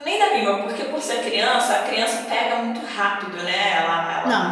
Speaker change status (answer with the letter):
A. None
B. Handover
B